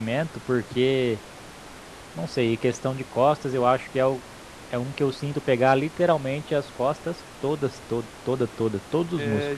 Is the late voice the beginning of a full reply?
Yes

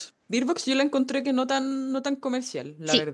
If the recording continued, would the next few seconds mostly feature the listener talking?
Yes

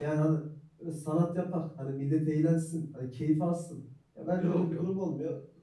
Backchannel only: Yes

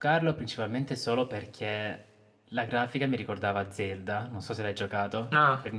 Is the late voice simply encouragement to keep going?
No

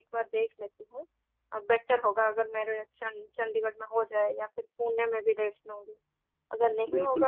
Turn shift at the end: No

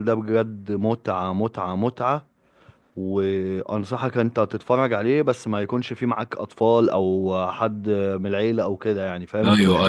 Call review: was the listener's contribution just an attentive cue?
No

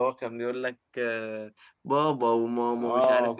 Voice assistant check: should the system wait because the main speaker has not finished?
No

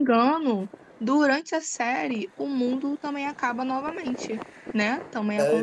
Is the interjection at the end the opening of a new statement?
Yes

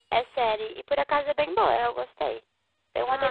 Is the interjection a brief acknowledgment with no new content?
No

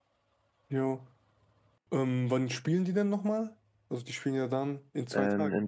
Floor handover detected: Yes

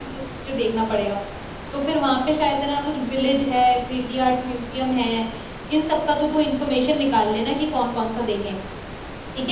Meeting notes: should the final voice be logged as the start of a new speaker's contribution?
Yes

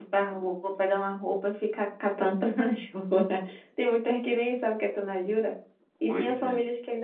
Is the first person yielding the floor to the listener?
No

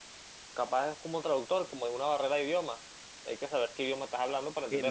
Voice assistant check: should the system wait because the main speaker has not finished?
No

